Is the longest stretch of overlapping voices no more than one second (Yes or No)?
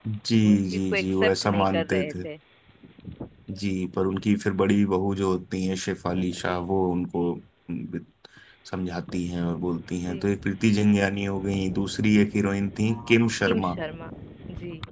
No